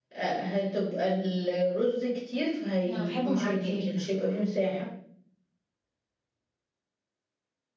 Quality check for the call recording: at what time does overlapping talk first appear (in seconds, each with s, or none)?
2.8 s